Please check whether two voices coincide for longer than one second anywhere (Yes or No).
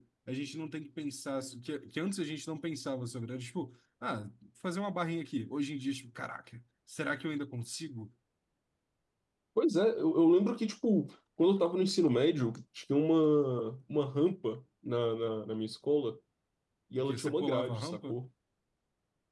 Yes